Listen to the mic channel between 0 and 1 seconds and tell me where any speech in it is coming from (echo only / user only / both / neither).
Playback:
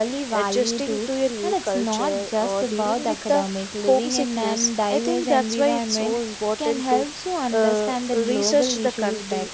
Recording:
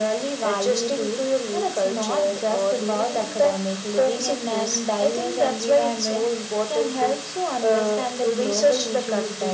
echo only